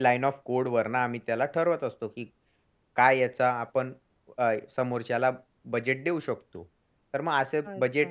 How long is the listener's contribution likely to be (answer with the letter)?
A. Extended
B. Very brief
B